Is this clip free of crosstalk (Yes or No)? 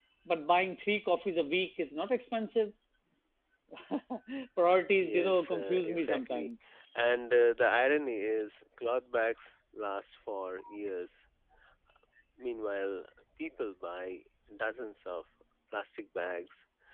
No